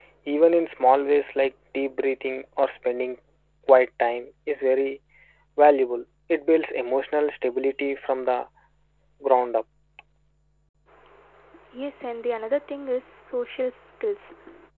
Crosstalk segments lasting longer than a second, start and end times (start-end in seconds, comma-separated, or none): none